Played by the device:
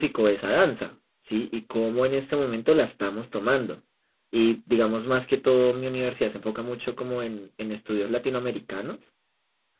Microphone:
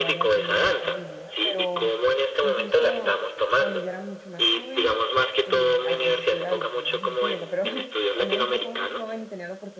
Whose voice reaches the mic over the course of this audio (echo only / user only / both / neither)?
both